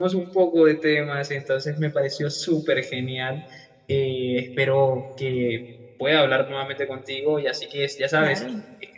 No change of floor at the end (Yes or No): Yes